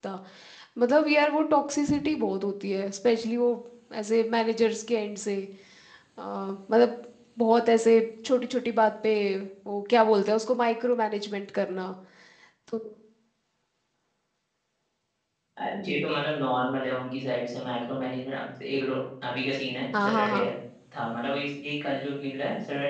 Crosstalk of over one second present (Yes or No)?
No